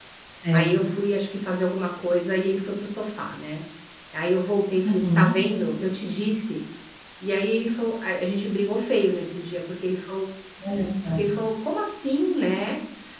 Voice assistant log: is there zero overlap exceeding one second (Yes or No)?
Yes